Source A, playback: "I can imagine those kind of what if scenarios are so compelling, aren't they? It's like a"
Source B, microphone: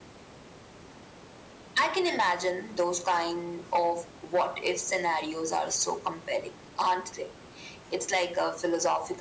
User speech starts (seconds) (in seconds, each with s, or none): none